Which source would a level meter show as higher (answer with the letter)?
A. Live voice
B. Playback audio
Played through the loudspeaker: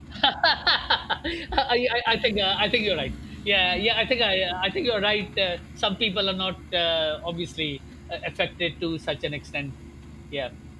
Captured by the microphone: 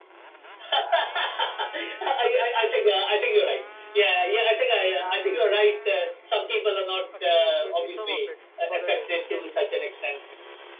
B